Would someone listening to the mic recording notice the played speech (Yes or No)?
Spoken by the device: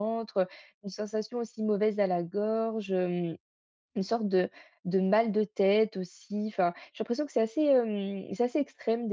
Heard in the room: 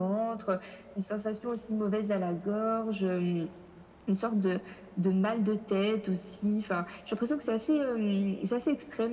Yes